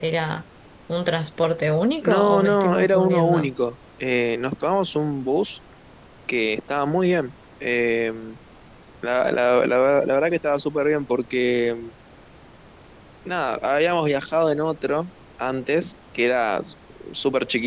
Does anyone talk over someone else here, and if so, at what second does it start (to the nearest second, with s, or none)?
2 s